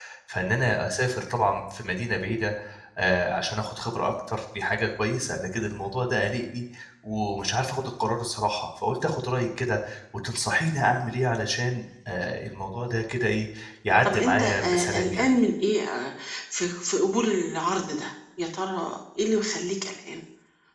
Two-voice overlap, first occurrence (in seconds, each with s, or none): 14.0 s